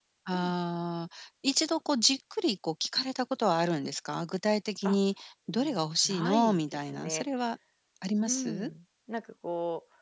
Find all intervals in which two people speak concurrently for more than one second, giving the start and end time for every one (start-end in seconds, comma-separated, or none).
5.5-7.2